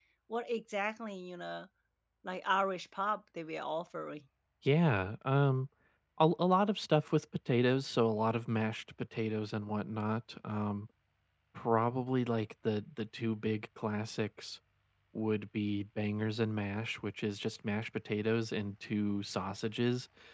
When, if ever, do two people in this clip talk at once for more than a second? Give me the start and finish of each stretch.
none

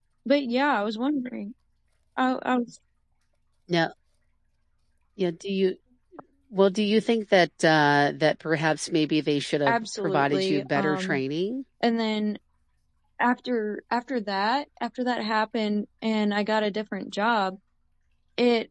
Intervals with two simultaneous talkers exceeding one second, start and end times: 9.7-11.2

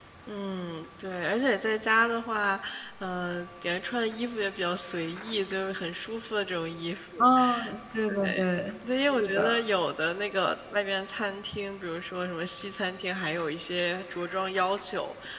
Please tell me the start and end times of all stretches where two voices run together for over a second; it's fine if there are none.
none

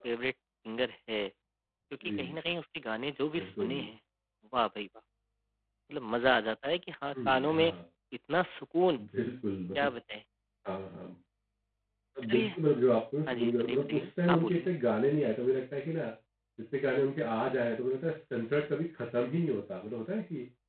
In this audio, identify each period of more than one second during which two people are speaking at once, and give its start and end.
13.3-14.7

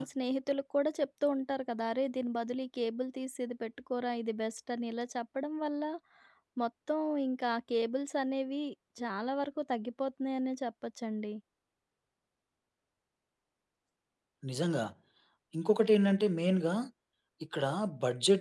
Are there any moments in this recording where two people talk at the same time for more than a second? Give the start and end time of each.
none

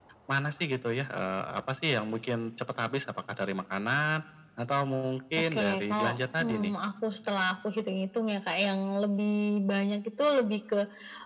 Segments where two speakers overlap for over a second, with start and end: 5.5-6.7

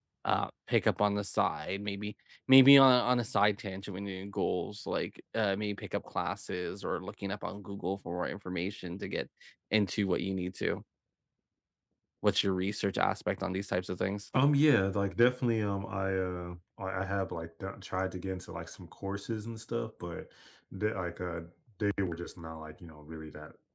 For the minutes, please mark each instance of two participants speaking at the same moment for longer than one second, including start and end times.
none

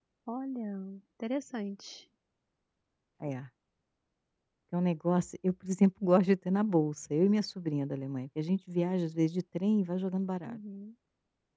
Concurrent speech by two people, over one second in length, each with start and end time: none

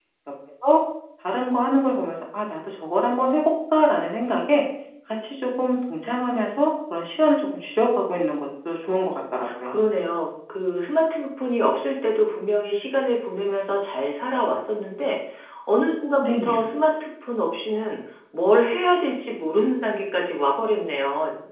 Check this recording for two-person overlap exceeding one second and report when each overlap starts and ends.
none

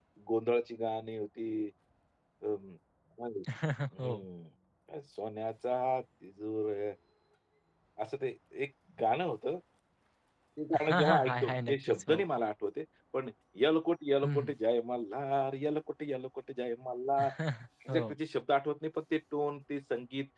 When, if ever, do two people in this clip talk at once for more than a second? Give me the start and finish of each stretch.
10.8-12.2

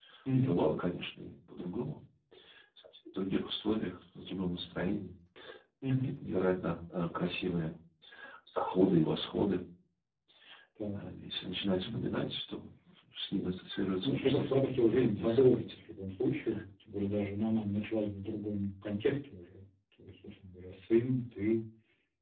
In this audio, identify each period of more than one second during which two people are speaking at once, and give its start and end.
14.0-15.8

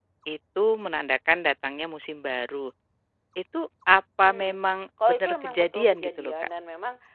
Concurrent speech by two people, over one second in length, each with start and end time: 5.0-6.3

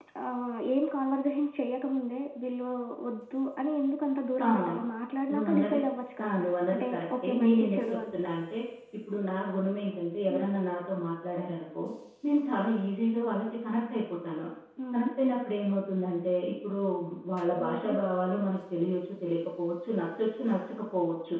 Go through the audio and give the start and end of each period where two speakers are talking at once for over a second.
6.7-8.0

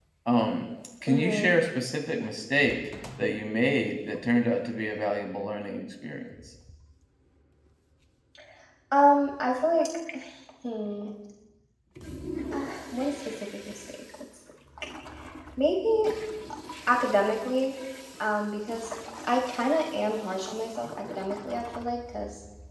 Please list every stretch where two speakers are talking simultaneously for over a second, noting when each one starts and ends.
none

